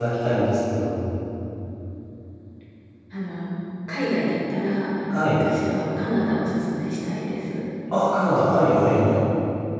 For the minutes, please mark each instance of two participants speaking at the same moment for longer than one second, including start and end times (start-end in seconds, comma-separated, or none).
none